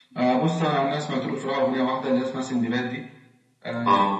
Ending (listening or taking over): listening